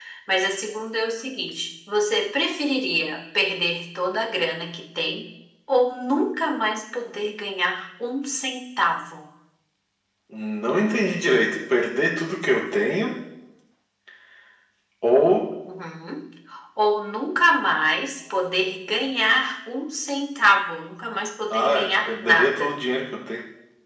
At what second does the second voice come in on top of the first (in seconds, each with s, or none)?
21.5 s